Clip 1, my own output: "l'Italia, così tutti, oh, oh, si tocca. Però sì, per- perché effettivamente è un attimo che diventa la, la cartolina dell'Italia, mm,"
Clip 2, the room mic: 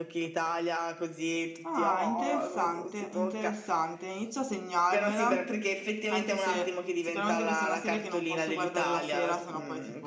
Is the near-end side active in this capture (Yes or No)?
Yes